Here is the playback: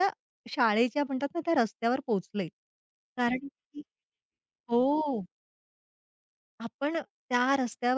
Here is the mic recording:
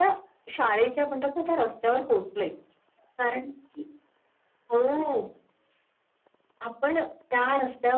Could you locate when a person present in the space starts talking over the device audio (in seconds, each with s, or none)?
none